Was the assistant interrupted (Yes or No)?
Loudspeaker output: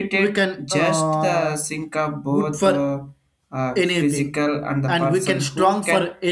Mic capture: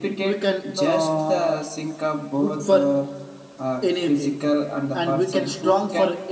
No